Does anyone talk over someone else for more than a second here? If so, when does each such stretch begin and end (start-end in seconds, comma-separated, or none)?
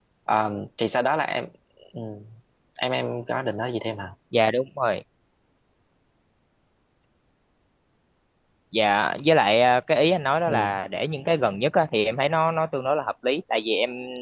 none